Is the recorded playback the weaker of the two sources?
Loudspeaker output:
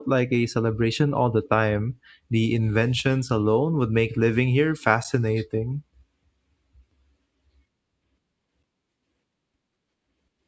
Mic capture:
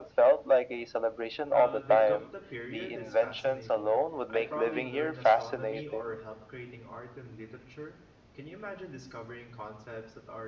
No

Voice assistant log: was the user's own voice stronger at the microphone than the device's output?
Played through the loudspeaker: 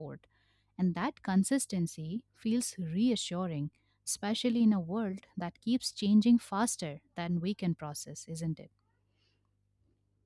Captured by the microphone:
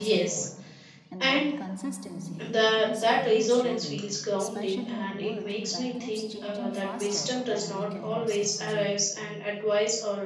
Yes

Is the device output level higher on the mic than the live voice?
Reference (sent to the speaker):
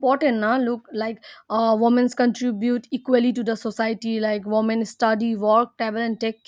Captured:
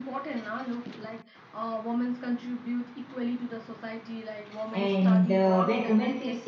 No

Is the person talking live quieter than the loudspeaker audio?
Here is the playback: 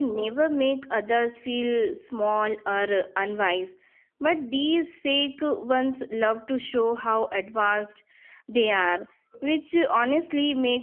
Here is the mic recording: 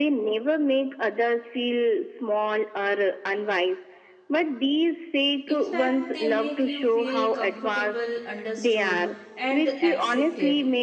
Yes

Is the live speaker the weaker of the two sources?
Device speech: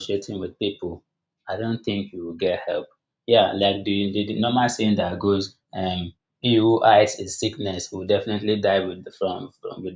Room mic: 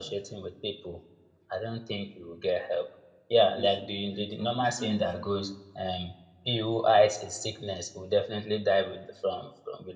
Yes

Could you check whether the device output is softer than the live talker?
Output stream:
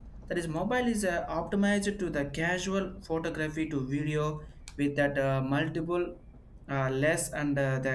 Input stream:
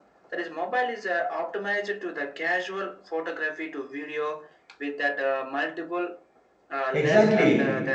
Yes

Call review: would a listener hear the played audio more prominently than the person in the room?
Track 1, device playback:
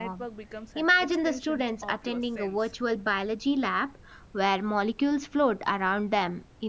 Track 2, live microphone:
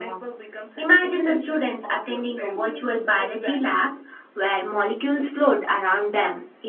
Yes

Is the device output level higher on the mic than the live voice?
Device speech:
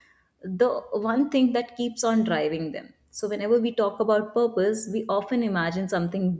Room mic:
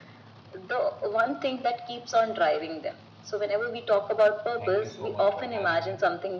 Yes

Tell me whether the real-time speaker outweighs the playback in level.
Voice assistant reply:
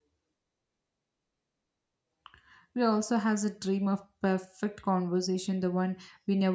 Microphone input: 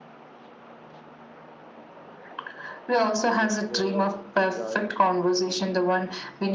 No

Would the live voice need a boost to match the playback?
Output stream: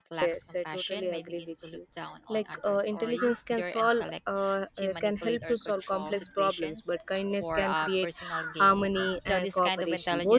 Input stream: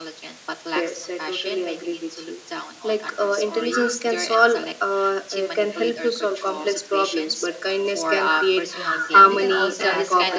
Yes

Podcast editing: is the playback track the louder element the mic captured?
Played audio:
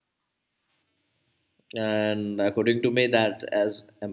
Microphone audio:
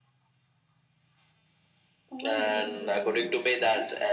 Yes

